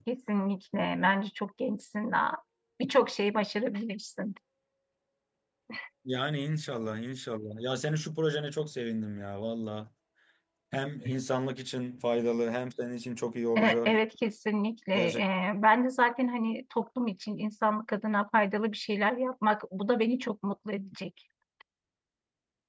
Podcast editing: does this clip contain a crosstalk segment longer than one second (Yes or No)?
No